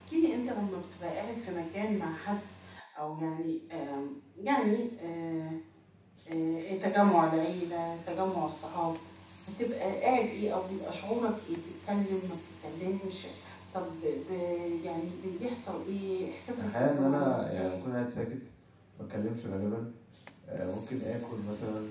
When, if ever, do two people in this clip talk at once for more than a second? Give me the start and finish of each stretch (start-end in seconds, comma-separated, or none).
16.6-17.8